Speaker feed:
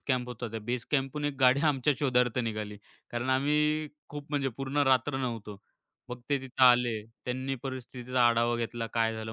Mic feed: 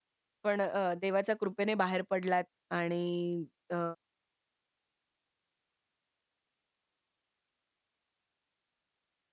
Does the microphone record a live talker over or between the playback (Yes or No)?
Yes